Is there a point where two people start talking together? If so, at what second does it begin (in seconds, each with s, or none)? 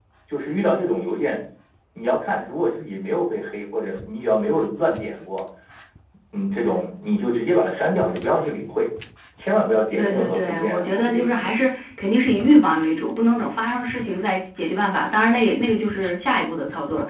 10.0 s